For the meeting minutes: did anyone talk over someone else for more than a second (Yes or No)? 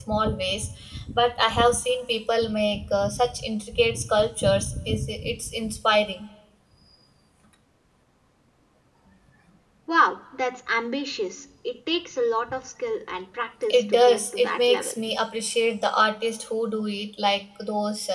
Yes